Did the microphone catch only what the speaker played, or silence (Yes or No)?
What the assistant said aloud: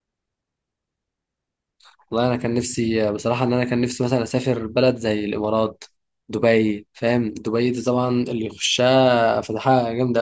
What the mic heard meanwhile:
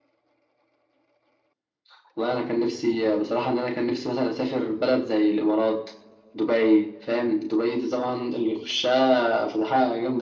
Yes